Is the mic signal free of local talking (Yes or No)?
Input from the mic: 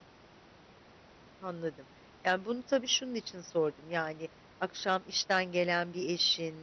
No